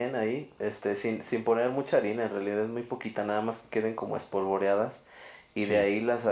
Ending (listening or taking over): listening